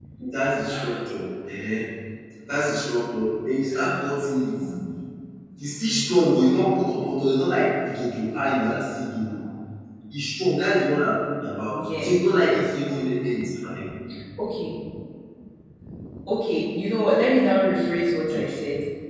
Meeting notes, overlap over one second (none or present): none